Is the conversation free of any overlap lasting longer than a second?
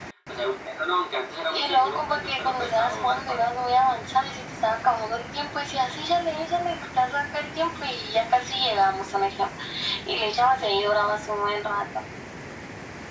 No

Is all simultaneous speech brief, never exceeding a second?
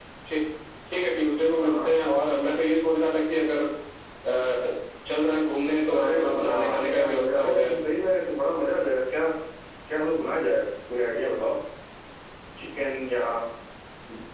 No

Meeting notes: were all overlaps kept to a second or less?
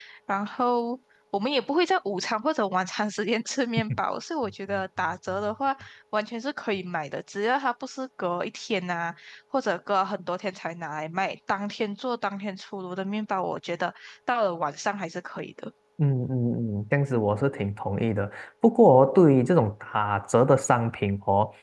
Yes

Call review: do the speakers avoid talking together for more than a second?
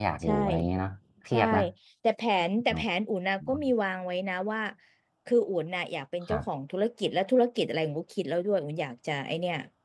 Yes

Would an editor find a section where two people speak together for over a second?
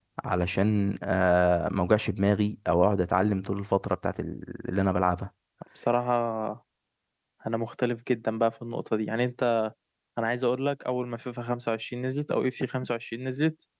No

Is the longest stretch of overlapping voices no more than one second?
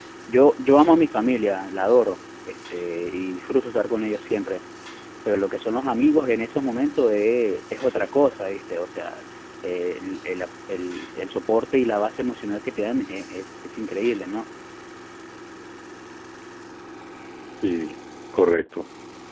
Yes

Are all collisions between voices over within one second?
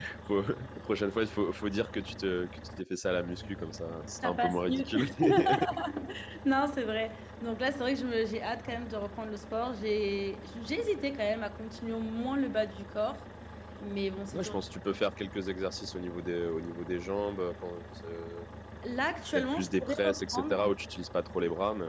No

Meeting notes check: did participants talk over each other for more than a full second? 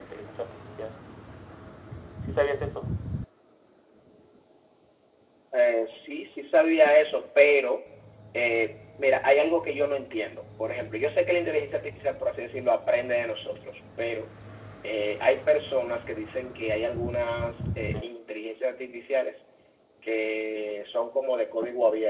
No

